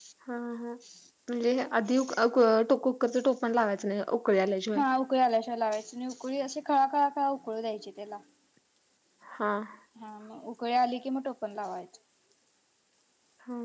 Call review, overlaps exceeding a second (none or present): none